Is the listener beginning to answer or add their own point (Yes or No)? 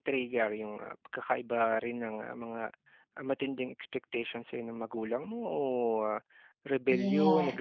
No